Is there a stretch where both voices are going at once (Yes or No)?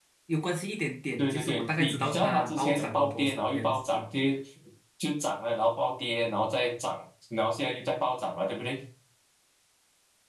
Yes